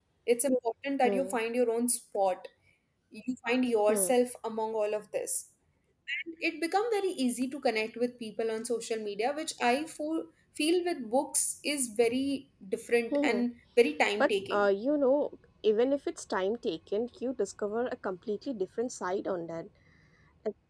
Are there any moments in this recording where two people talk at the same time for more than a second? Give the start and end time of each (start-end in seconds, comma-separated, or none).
none